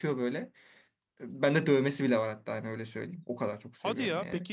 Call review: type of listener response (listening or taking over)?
taking over